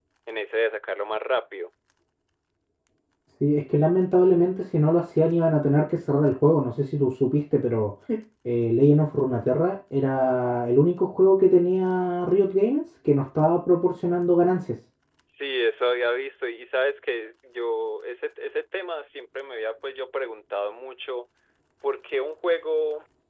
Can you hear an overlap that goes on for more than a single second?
No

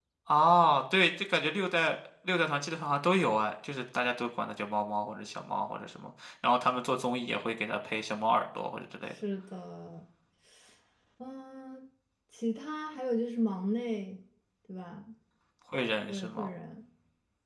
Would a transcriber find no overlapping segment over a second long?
Yes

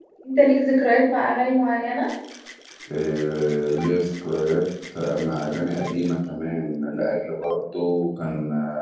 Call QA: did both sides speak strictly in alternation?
Yes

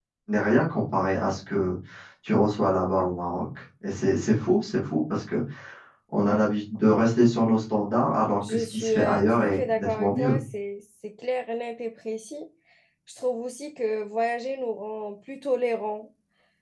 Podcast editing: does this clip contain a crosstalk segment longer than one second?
Yes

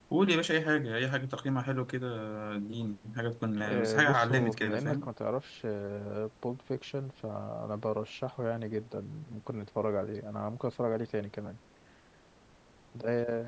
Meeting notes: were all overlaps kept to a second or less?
No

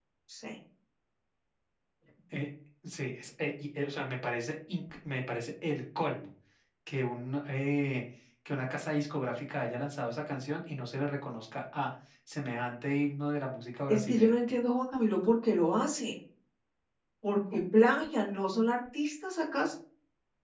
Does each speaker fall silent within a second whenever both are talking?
Yes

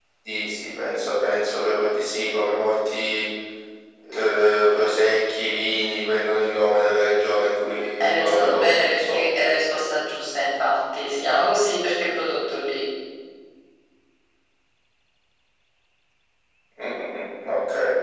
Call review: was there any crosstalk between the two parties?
Yes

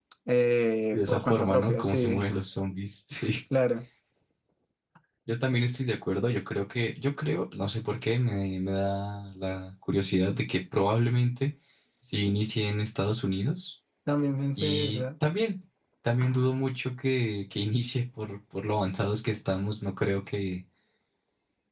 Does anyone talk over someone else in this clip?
Yes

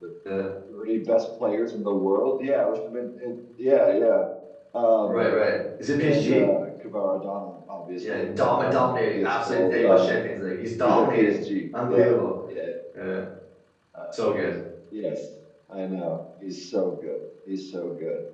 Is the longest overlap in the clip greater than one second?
Yes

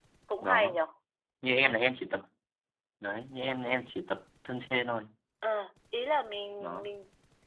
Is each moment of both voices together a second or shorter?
Yes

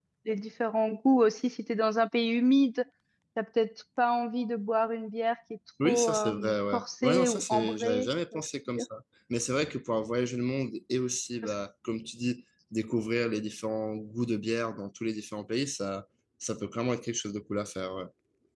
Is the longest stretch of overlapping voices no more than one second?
No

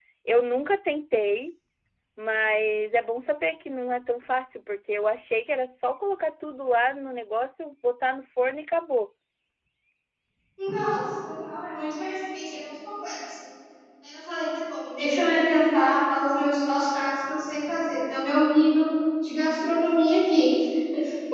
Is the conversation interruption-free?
Yes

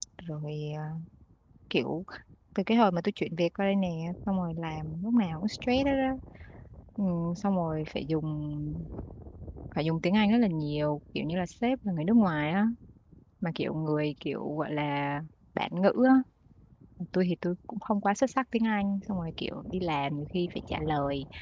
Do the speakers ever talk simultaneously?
No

